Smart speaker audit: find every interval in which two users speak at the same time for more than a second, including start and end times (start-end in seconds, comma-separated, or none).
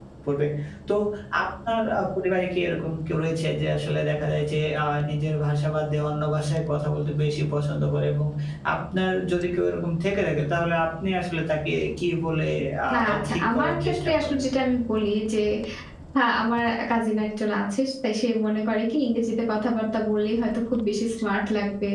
12.9-14.4